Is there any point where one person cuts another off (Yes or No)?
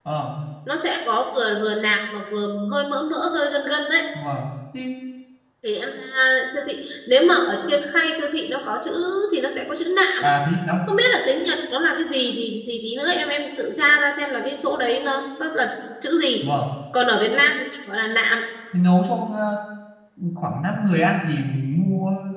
No